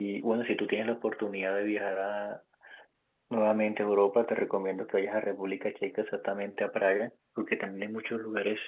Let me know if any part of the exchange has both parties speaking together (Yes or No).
No